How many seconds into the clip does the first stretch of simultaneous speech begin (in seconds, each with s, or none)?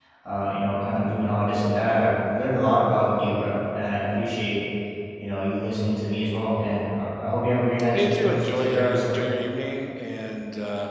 7.9 s